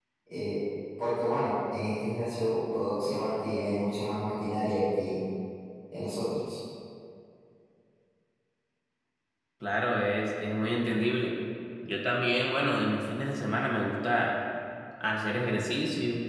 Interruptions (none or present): none